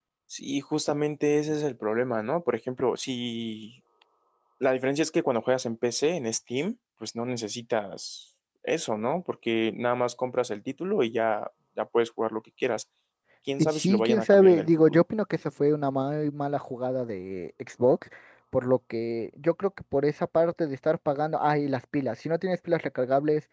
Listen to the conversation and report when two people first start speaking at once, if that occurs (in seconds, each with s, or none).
13.6 s